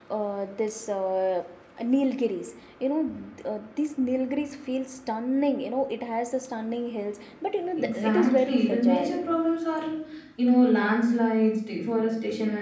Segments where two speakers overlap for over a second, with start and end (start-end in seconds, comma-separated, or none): 7.8-9.2